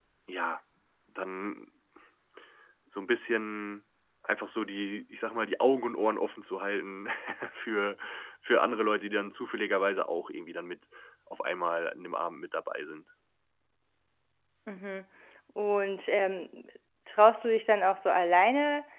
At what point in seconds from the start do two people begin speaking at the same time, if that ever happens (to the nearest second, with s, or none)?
none